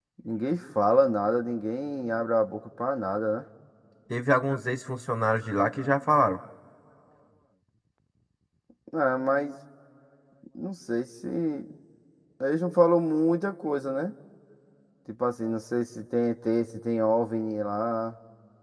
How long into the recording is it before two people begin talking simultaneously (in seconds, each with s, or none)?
none